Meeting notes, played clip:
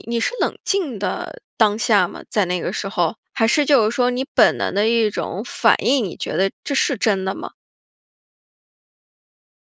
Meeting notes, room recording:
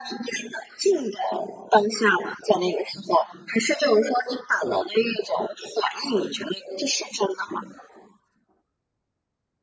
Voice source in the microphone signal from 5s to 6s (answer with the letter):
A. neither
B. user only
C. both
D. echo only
D